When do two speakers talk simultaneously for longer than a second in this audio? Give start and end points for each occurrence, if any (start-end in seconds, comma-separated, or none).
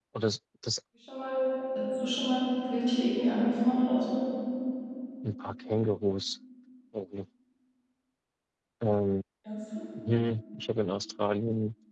none